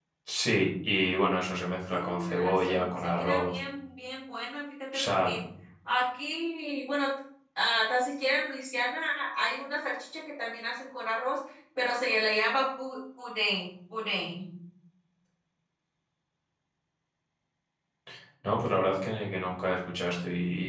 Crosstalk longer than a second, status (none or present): present